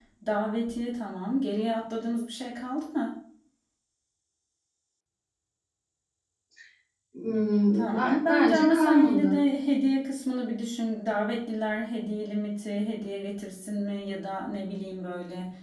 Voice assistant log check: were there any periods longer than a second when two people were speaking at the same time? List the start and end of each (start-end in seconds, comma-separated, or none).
7.7-9.3